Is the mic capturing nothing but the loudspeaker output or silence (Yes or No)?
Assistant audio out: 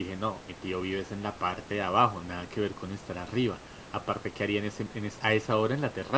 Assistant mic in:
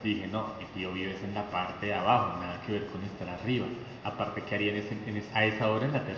Yes